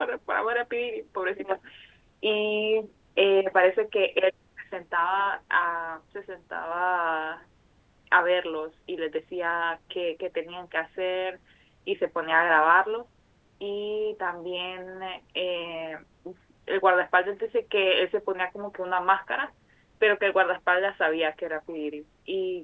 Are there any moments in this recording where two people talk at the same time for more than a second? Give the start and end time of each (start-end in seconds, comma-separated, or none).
none